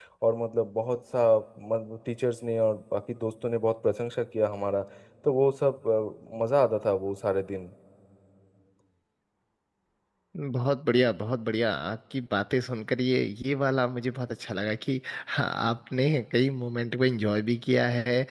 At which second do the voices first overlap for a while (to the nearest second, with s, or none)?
none